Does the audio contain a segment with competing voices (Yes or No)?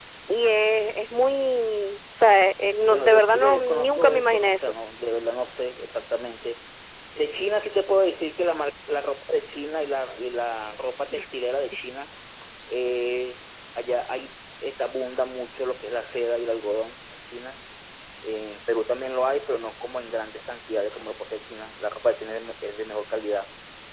Yes